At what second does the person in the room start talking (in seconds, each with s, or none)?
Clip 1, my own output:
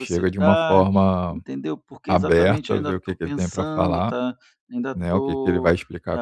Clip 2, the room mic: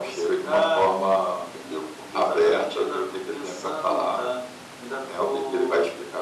none